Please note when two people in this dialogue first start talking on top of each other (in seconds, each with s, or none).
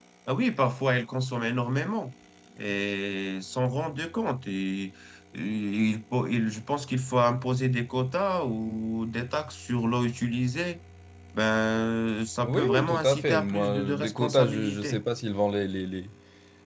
12.4 s